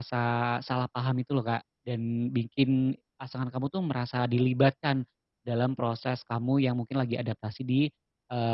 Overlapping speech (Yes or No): No